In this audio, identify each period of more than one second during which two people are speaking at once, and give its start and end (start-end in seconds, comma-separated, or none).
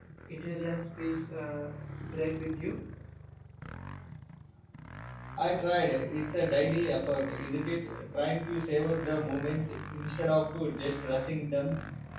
none